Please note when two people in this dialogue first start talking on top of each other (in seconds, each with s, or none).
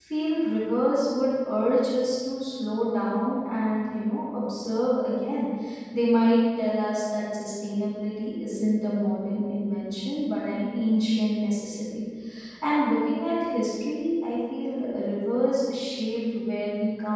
none